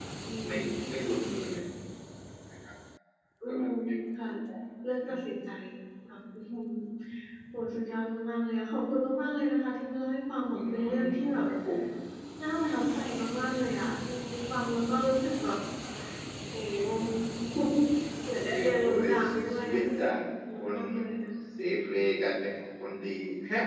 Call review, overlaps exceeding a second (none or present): present